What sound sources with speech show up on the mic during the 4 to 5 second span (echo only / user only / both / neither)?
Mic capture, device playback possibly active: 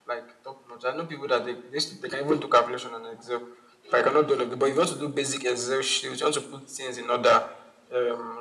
echo only